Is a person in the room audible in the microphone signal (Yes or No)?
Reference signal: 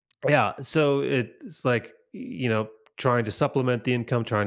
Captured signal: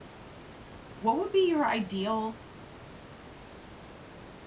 Yes